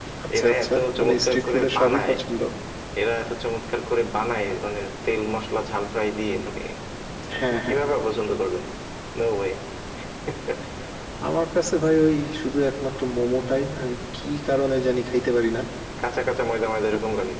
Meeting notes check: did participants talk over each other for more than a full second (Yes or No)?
Yes